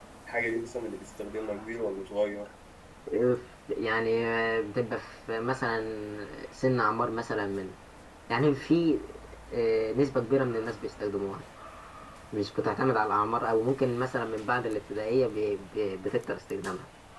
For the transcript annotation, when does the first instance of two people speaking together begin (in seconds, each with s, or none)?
none